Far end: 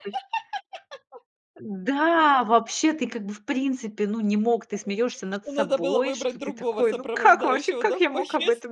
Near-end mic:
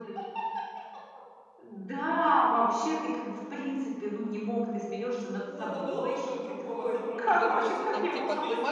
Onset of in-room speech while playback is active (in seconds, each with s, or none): 7.3 s